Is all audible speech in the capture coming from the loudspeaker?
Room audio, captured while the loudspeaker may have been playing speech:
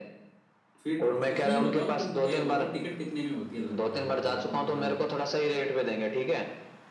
No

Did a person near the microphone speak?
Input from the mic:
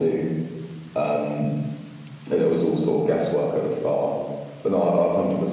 No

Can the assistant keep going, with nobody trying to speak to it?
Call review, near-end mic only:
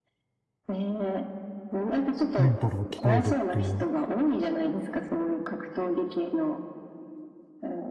No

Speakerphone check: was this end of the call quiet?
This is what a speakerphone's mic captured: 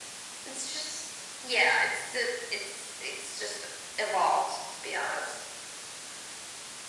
Yes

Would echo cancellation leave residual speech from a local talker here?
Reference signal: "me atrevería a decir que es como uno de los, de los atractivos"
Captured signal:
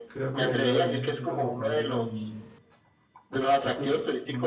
Yes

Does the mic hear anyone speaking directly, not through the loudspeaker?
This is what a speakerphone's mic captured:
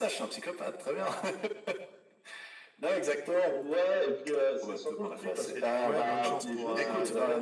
Yes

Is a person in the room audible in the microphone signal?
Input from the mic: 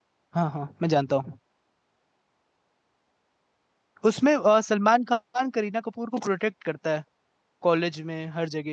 Yes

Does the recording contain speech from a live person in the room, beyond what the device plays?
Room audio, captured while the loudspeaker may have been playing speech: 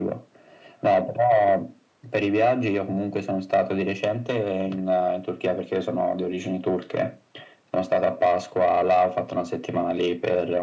No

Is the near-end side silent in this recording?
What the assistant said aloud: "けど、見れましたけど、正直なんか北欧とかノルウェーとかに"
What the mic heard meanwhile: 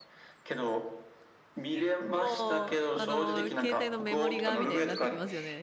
No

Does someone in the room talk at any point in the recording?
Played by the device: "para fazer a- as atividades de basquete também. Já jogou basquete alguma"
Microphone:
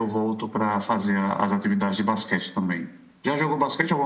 No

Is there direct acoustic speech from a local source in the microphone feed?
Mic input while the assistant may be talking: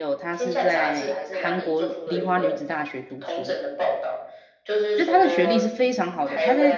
Yes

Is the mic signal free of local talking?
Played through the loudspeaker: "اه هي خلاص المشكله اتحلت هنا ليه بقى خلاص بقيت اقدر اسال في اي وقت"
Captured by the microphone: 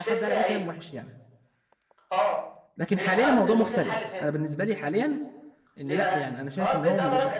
No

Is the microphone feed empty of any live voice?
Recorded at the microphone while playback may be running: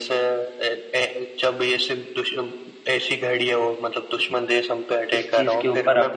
No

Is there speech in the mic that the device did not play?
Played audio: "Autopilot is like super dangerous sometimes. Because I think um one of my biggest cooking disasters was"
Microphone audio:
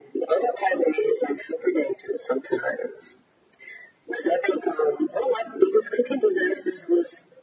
No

